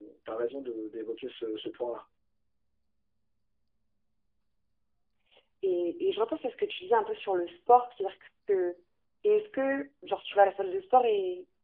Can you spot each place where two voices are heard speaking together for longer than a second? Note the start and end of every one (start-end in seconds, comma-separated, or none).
none